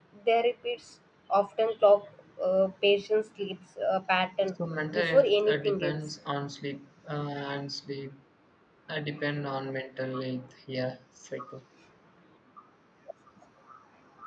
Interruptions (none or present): present